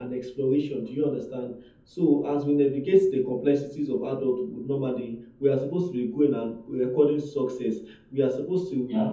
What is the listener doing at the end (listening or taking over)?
listening